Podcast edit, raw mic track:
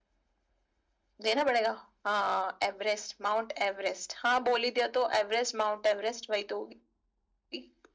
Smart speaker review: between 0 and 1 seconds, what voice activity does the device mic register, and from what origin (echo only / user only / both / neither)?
neither